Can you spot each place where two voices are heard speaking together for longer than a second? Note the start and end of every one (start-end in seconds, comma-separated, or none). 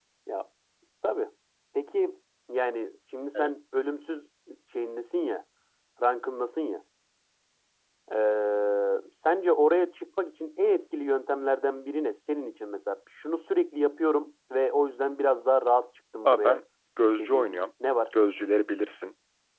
none